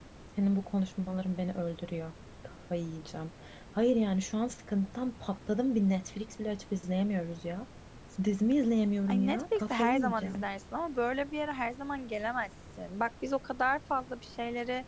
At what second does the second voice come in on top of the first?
9.1 s

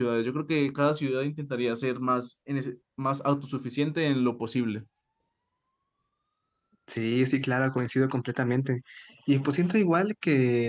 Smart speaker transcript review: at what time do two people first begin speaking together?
none

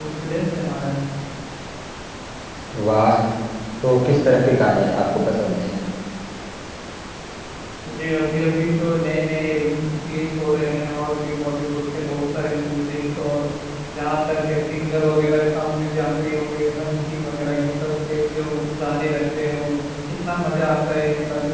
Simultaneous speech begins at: none

